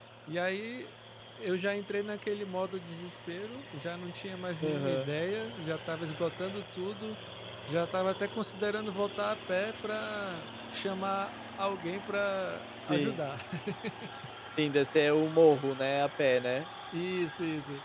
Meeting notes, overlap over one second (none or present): none